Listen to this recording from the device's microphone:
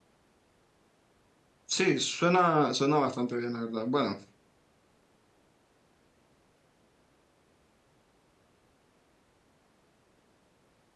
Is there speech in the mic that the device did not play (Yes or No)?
Yes